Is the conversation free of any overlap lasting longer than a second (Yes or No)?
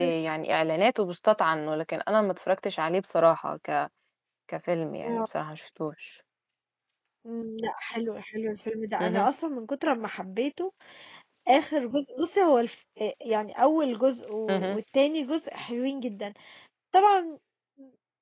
Yes